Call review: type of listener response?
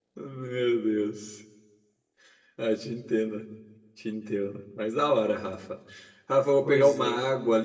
listening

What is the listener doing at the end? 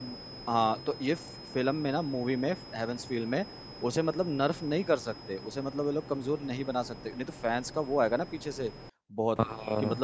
listening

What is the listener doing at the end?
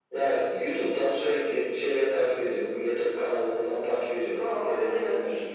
taking over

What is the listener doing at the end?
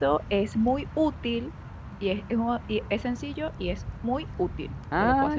taking over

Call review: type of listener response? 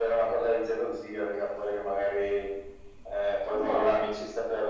listening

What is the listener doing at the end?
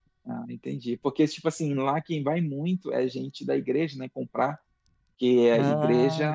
listening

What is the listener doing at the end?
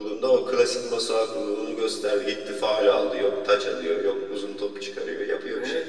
taking over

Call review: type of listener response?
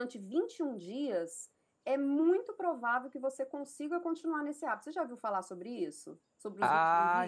taking over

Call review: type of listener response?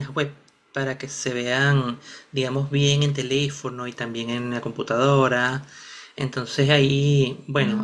listening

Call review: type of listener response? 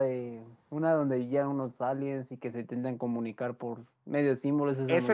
taking over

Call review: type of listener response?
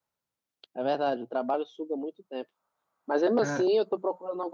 listening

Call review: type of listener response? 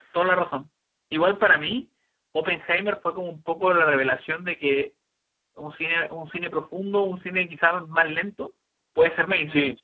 listening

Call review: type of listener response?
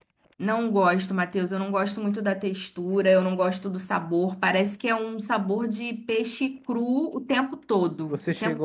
taking over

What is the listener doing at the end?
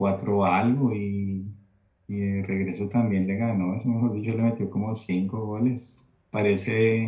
listening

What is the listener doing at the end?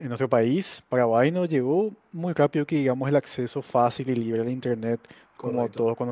listening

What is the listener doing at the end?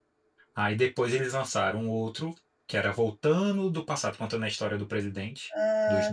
taking over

